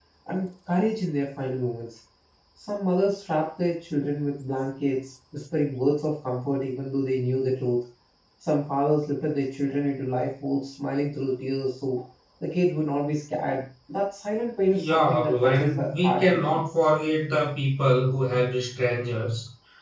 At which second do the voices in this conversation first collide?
14.7 s

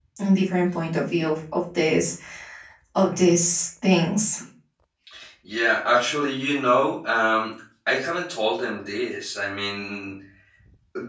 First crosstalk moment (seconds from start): none

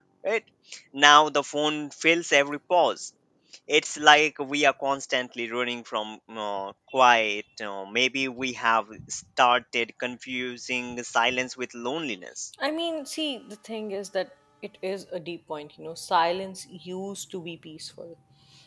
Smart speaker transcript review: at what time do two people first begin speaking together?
none

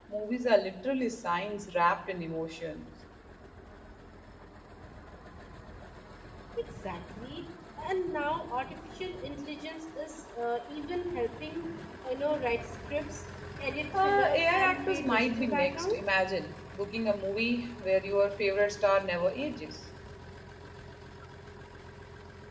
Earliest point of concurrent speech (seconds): 13.9 s

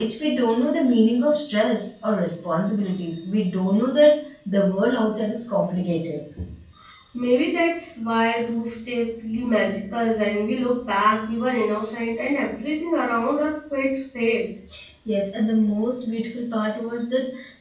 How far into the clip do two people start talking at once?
none

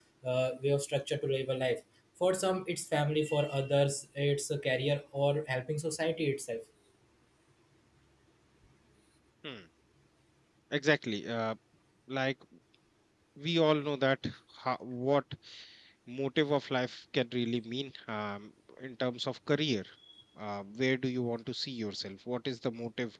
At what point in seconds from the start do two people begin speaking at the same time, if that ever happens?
none

